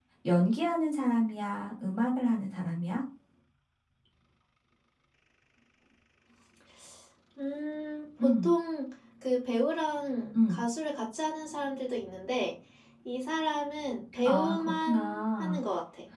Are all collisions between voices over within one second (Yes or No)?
No